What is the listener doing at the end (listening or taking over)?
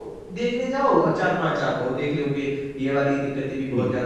listening